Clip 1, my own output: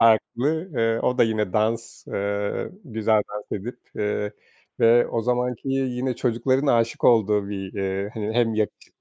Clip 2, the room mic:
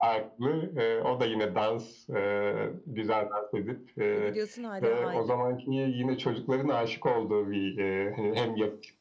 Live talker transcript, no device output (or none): Ve biliyorsun hâlâ aynı.